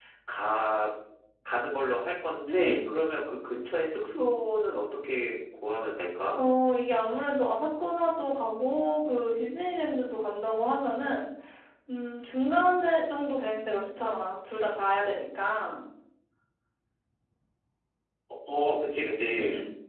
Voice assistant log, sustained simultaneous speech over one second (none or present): none